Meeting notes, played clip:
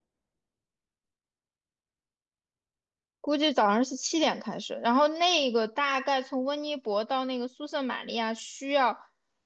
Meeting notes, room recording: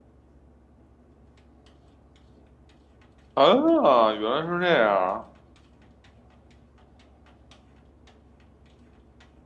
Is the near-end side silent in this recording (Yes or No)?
No